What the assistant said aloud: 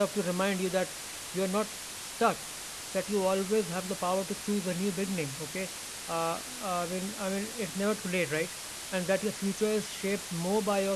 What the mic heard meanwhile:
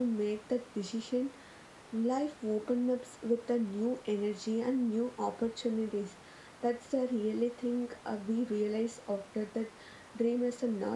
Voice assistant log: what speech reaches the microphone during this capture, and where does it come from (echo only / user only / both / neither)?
user only